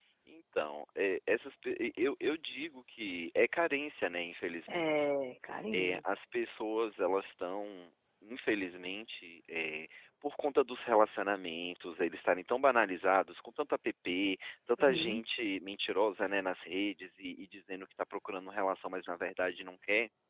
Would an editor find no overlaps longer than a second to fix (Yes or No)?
Yes